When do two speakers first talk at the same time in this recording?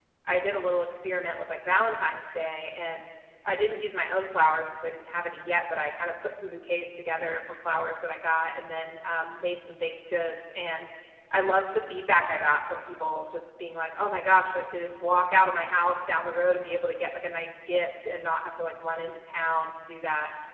none

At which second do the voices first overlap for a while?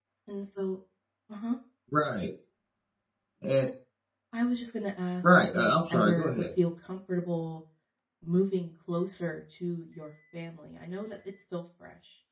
5.2 s

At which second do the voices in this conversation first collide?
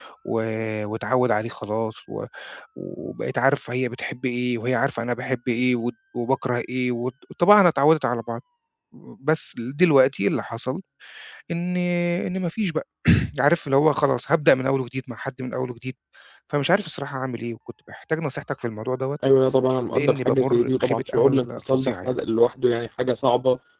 19.9 s

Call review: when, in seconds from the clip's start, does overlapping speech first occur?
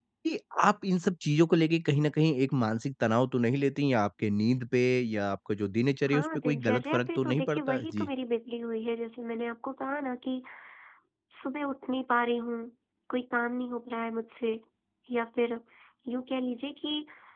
6.1 s

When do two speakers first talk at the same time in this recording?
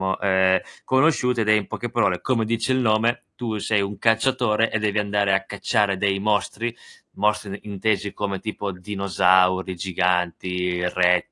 none

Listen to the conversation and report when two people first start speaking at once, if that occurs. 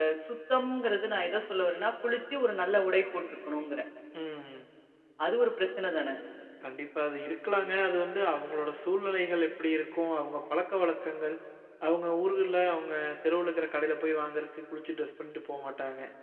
none

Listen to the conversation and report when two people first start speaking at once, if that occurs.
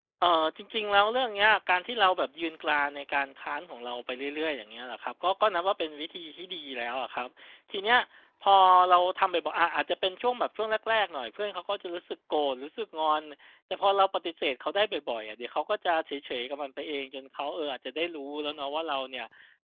none

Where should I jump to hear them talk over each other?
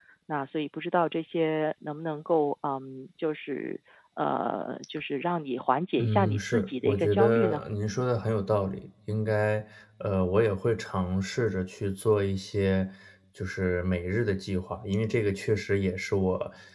6.0 s

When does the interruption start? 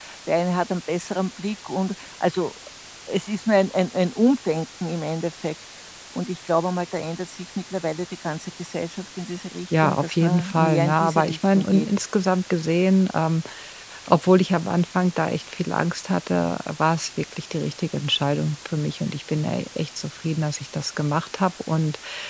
9.7 s

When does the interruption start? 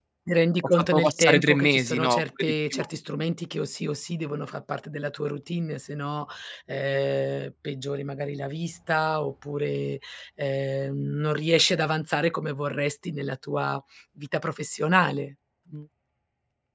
0.6 s

